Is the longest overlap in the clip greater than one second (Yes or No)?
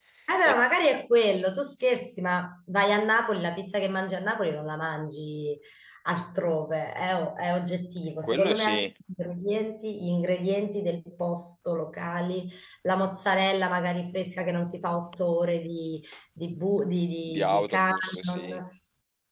Yes